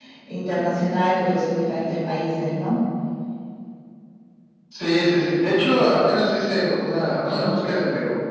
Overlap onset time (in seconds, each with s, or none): none